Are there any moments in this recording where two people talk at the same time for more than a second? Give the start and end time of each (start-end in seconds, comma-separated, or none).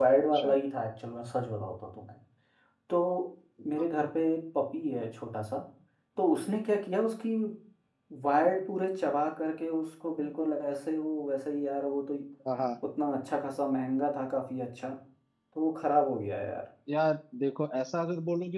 none